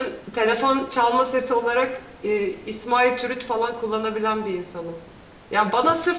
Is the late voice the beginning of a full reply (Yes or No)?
No